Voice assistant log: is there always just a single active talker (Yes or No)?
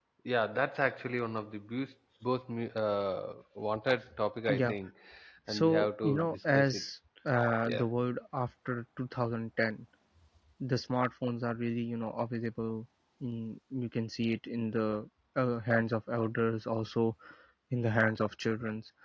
No